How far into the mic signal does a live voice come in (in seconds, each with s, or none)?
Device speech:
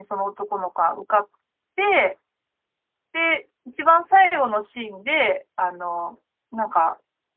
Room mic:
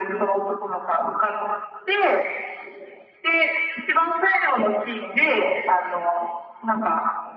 none